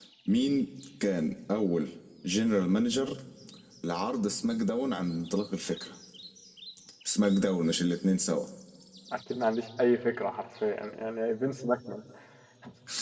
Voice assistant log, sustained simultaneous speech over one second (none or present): none